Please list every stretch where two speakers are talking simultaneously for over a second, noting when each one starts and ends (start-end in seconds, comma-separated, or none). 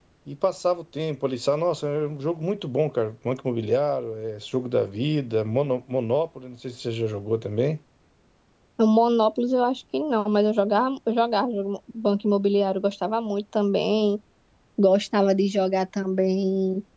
none